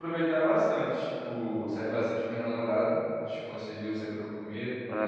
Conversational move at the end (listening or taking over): listening